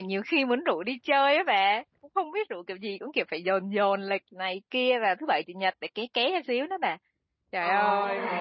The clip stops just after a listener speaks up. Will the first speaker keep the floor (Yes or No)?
No